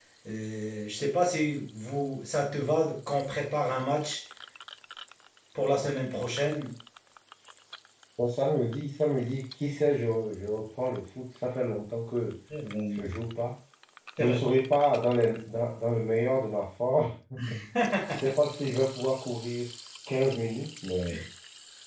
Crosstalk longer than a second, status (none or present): none